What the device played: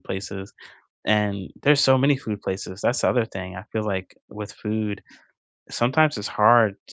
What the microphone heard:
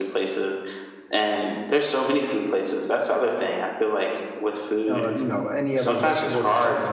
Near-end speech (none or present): present